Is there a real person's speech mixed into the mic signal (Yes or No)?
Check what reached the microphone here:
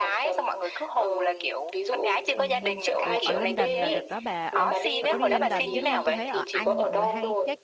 Yes